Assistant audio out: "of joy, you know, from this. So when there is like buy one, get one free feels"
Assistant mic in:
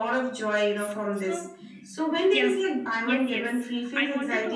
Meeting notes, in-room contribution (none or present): present